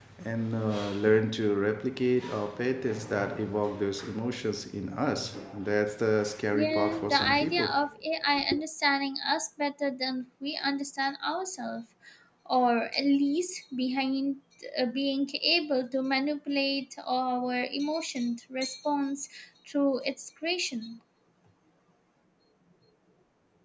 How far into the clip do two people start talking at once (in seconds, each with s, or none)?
6.5 s